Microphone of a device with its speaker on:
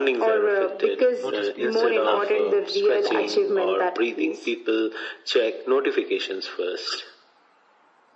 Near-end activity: present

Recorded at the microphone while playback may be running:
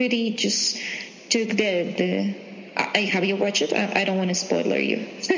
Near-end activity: none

